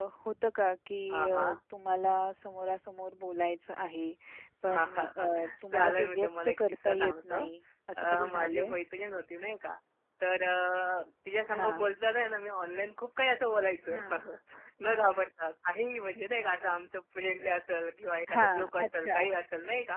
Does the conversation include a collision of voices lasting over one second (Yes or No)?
Yes